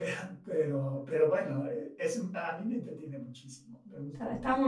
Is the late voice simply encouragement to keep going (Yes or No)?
No